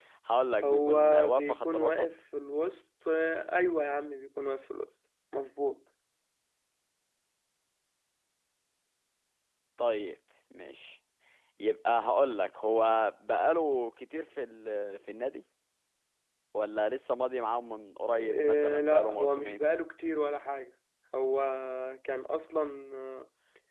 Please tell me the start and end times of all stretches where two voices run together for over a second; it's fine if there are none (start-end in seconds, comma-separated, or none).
0.6-2.1, 18.1-19.6